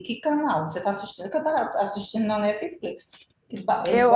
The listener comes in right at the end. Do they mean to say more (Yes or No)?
Yes